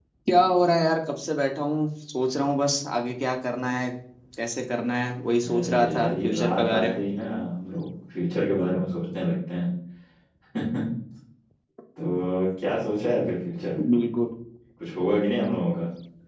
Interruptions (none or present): present